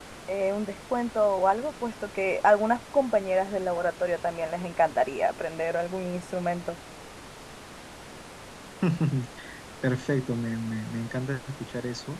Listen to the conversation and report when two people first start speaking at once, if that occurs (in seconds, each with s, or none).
none